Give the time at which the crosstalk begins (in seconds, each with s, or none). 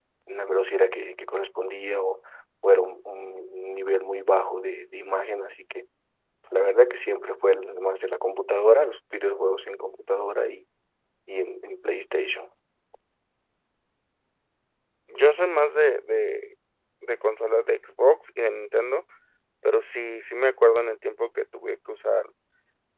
none